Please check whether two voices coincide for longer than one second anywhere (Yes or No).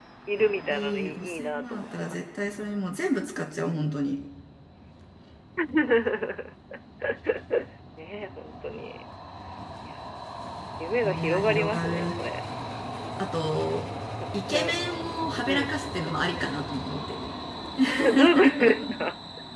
Yes